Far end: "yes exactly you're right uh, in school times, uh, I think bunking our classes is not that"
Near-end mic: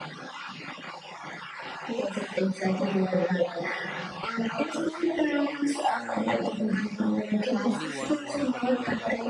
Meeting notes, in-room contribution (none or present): present